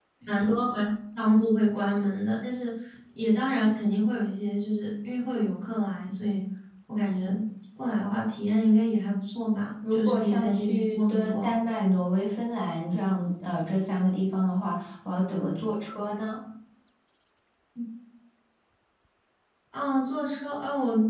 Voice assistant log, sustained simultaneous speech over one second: present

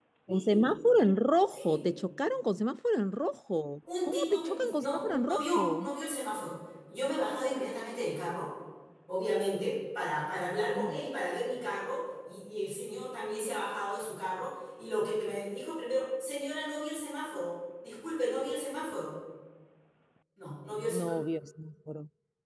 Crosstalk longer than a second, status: present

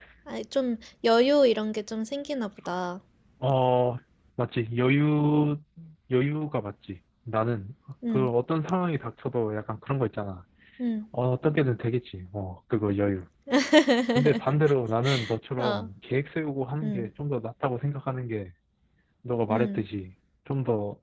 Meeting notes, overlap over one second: none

